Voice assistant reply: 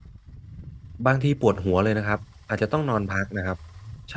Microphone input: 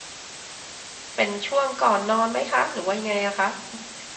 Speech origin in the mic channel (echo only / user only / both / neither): user only